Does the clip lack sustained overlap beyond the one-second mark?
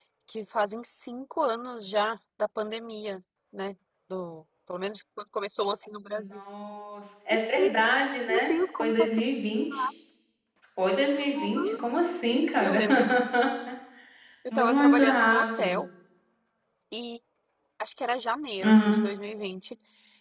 No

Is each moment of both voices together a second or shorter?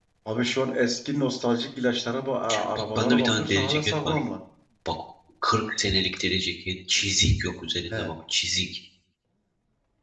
No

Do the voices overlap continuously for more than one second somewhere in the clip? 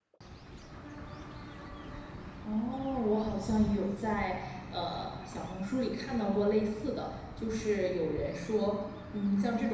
No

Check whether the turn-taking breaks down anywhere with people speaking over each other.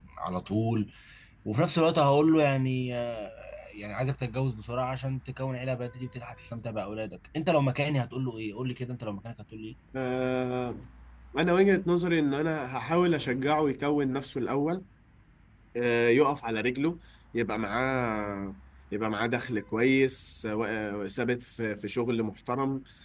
No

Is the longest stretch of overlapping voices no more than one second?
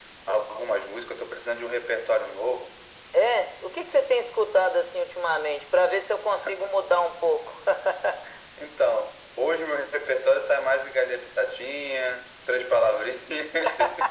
Yes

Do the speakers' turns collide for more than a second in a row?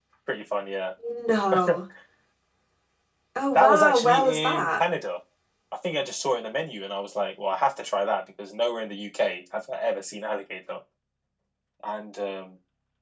Yes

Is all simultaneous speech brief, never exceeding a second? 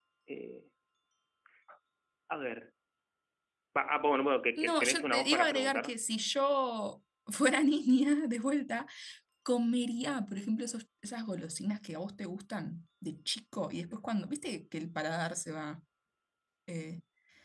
No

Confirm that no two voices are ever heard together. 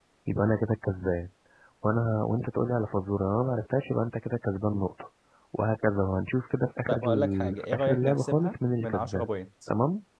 No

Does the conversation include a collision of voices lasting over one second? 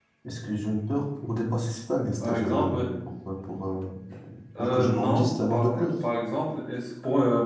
Yes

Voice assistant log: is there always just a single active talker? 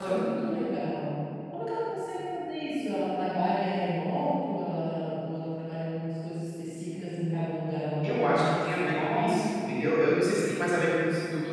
No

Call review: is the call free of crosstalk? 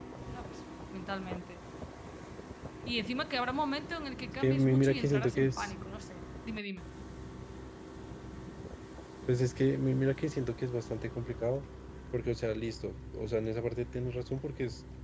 No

